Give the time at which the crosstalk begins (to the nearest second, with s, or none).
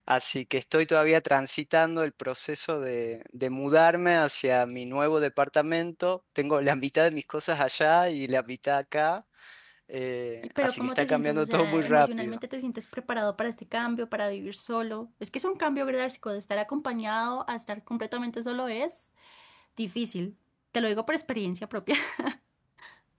11 s